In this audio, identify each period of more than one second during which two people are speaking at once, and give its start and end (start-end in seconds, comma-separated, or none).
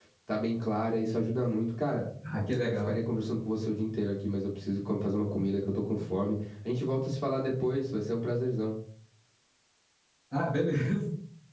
none